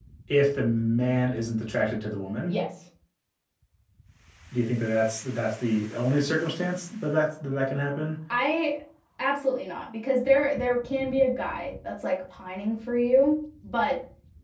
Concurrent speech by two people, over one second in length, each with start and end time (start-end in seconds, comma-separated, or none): none